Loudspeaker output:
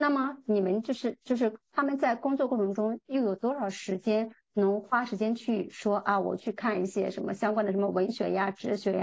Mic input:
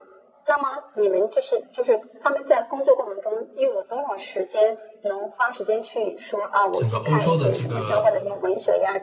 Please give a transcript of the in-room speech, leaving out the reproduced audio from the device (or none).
整个欧洲的这个